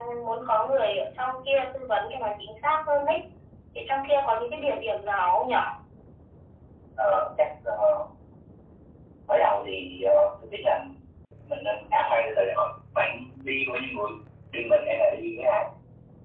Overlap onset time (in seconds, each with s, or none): none